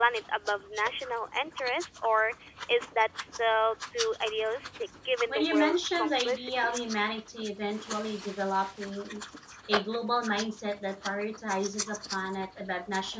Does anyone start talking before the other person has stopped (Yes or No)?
Yes